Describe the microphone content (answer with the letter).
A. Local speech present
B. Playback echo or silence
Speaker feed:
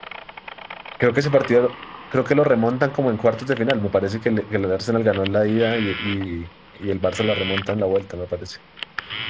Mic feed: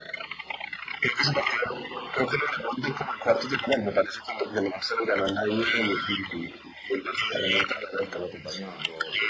A